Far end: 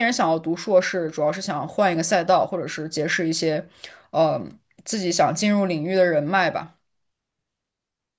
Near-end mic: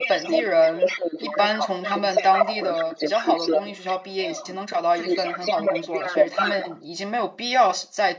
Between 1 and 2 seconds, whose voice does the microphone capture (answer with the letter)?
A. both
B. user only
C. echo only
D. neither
A